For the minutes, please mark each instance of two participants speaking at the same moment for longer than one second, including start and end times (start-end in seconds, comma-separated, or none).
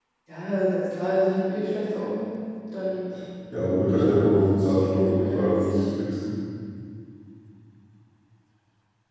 3.6-5.7